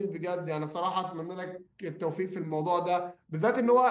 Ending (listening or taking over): listening